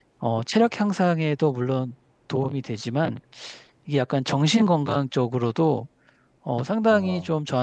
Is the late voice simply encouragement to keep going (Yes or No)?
Yes